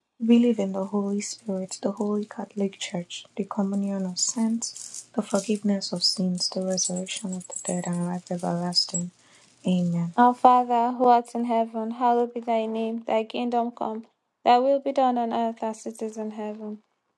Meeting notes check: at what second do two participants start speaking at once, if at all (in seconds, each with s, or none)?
none